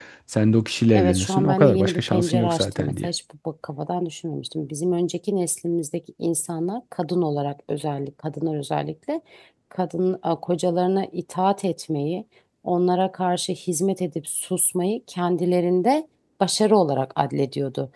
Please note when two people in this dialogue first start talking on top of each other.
0.9 s

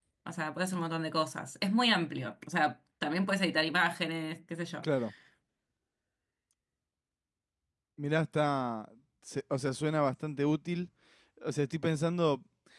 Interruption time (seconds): none

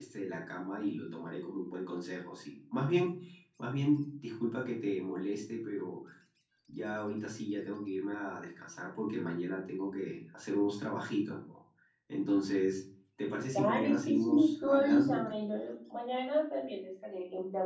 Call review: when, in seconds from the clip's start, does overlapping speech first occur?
13.5 s

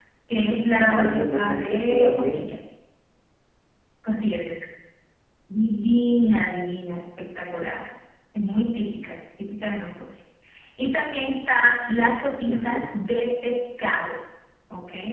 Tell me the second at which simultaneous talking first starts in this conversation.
0.8 s

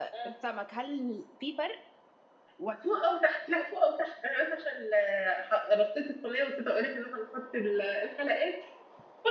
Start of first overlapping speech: none

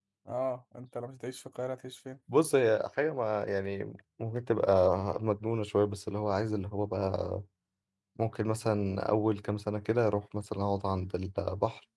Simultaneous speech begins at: none

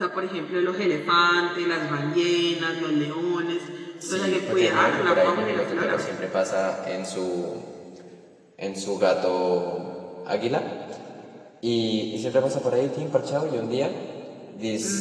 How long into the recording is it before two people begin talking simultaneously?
4.0 s

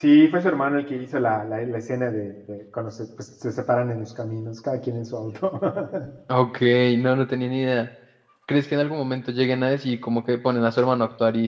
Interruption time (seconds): none

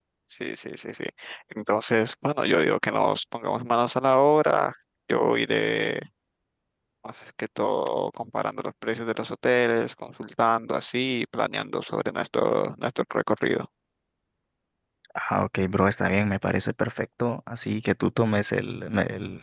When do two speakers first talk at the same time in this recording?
none

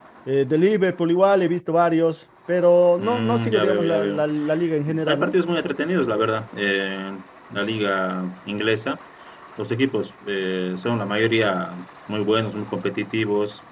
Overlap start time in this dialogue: 3.0 s

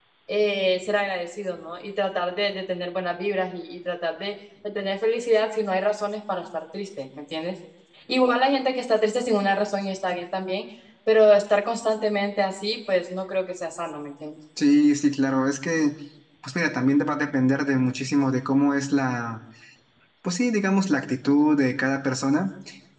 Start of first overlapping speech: none

